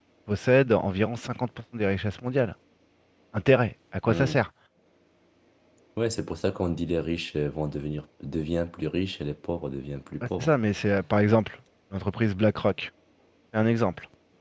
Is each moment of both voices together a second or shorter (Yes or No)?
Yes